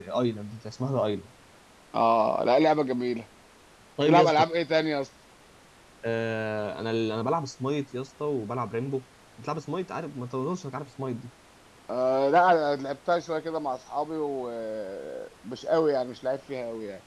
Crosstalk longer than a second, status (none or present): none